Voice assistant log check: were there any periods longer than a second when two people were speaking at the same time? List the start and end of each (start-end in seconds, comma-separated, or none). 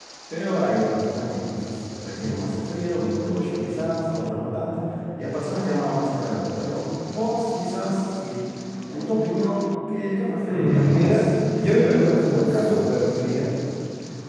10.4-12.8